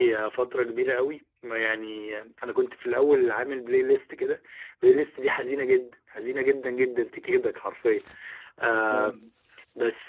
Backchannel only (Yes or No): Yes